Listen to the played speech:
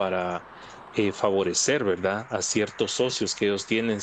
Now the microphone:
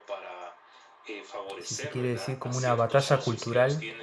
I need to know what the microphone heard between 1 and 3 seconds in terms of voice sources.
both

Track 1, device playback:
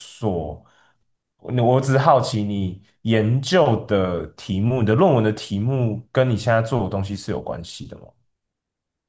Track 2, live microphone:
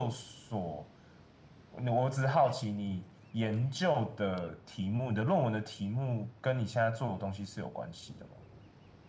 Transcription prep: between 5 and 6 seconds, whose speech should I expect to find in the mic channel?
echo only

